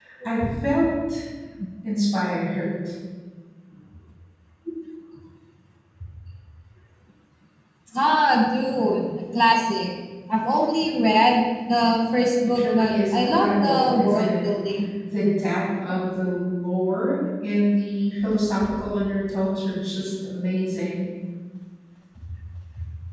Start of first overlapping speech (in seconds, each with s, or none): 12.4 s